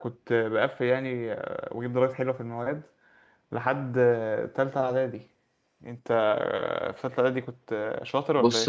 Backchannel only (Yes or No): No